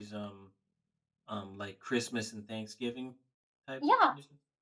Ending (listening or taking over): taking over